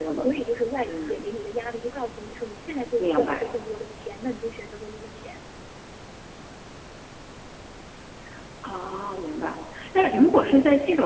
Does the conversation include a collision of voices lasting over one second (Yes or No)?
No